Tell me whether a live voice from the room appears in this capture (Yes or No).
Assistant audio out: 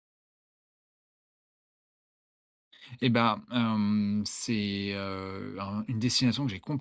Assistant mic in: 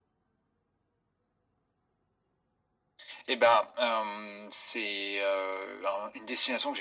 No